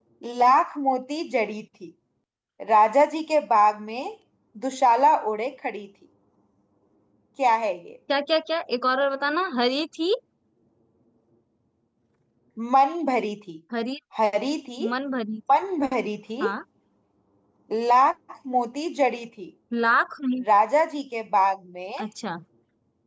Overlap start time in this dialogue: none

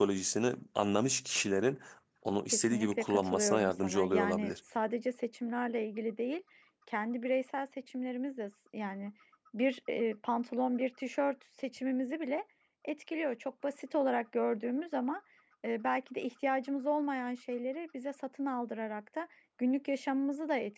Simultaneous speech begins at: 2.5 s

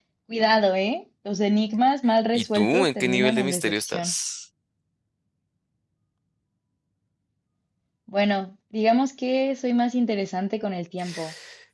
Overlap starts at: 2.3 s

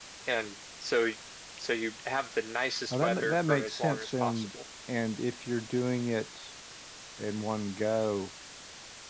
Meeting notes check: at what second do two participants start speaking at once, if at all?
2.9 s

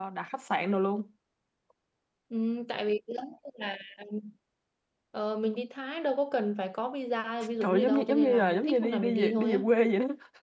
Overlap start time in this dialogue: 7.6 s

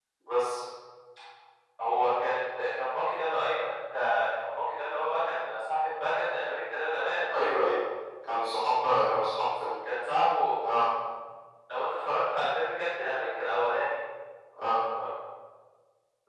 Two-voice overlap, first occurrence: none

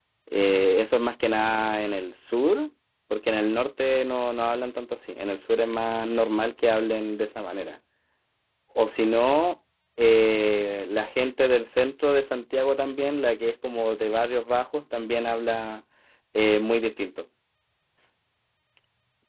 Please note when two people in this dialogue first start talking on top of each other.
none

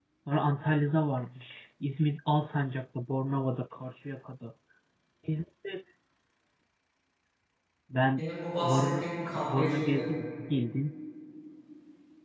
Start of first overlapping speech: 8.7 s

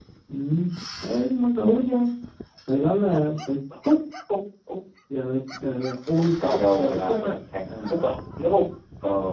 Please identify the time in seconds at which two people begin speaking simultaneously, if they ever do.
6.1 s

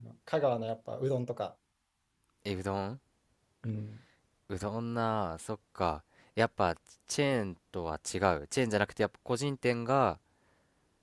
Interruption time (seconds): none

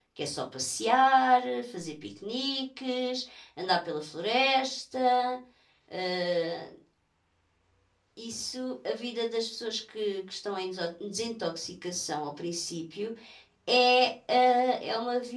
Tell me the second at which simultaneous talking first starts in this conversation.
none

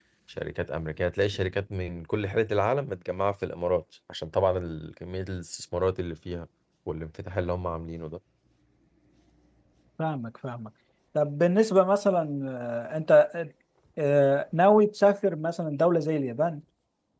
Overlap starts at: none

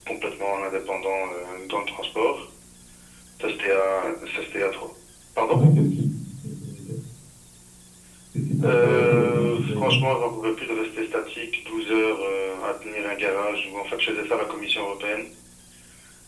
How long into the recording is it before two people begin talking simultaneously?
8.6 s

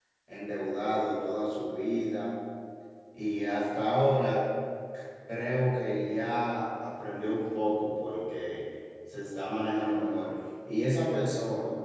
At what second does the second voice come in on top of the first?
none

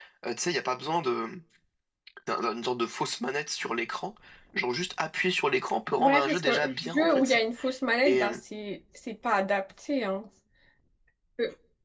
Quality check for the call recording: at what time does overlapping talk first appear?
6.0 s

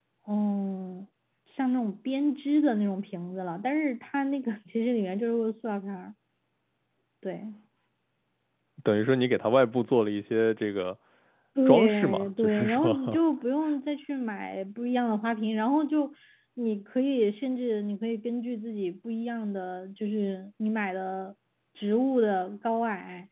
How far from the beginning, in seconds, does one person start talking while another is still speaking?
11.7 s

